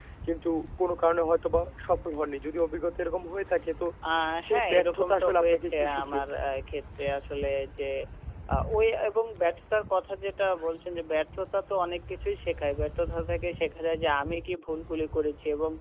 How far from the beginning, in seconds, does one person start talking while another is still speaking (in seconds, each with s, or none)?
4.5 s